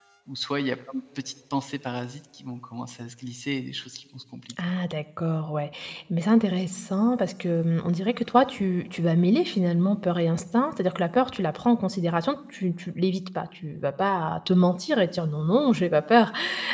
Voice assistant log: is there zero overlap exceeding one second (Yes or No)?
Yes